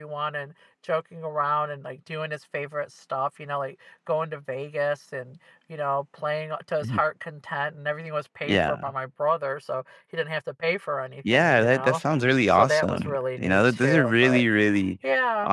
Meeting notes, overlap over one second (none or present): present